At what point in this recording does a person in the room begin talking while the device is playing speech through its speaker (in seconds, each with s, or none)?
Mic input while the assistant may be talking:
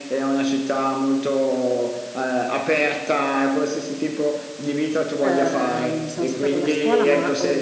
5.2 s